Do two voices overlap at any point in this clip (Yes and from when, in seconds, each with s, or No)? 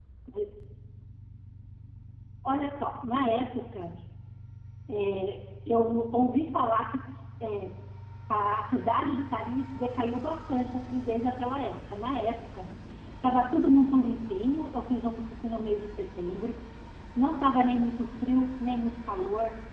No